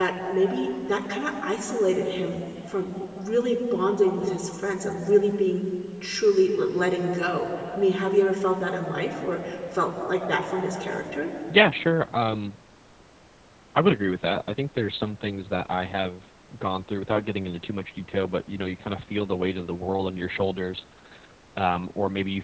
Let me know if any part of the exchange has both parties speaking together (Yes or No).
No